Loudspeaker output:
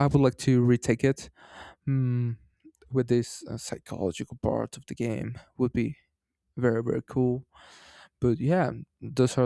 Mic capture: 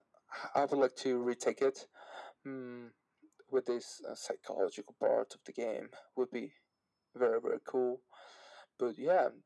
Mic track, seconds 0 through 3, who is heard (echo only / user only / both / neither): echo only